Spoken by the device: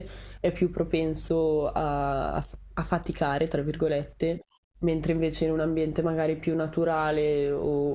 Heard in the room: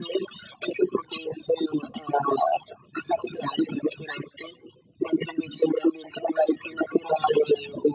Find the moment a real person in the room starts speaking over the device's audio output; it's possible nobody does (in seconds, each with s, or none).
none